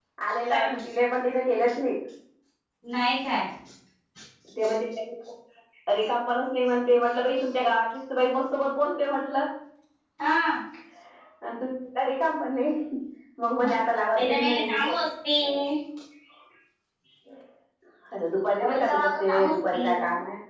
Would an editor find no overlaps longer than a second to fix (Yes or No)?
No